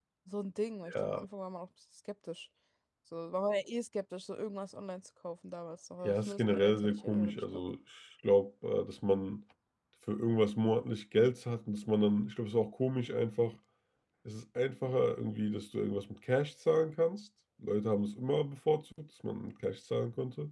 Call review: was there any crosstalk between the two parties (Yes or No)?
Yes